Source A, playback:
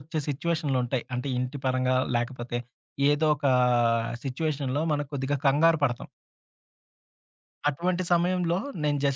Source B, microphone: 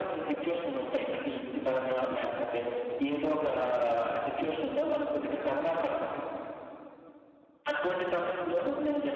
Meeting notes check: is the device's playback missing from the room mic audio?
No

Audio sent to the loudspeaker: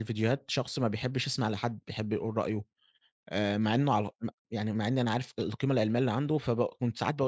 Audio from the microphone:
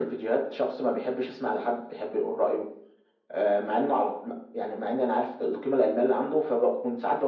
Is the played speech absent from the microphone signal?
No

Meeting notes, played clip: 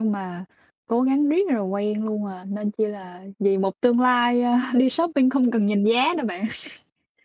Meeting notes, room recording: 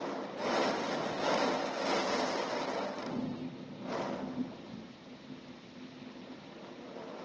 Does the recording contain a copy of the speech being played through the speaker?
No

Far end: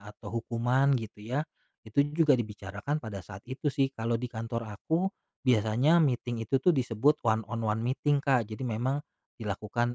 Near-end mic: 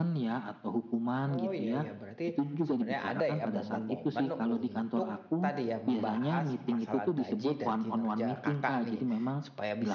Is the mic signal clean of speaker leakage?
No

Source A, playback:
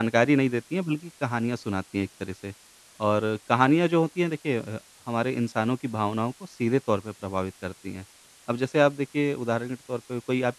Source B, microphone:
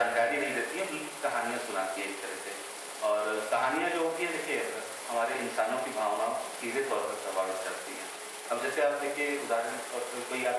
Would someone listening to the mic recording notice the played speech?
Yes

